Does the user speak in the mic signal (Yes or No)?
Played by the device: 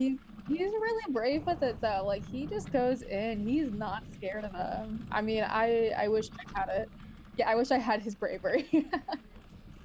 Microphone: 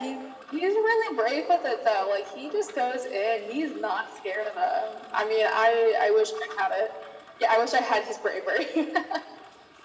No